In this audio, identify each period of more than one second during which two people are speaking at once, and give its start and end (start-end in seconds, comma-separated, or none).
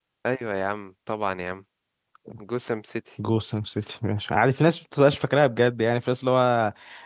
none